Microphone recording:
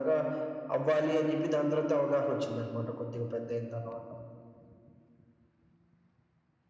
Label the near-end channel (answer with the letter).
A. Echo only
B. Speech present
A